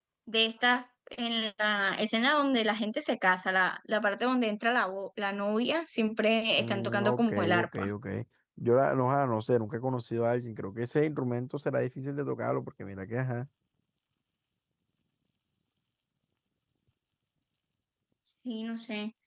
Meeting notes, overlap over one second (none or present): present